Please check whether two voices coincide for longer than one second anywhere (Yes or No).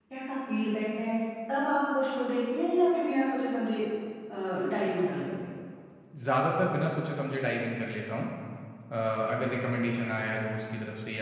No